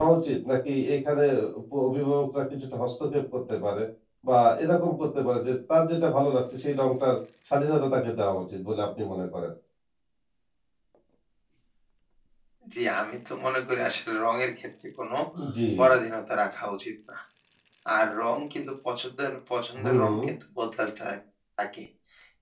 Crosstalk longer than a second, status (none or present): none